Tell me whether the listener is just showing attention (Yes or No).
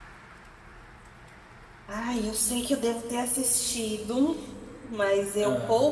Yes